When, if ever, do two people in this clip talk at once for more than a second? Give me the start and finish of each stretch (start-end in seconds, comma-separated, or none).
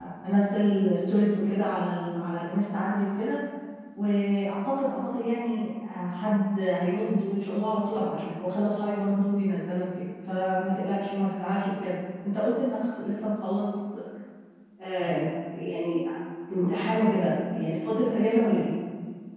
none